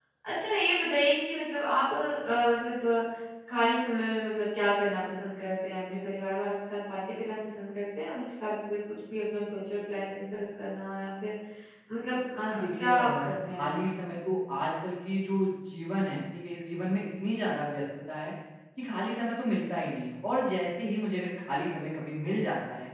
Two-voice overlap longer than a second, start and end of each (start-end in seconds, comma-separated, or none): 12.5-13.8